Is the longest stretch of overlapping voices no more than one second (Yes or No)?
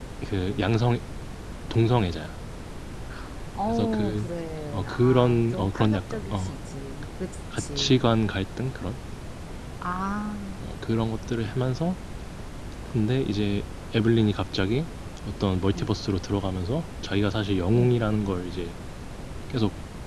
No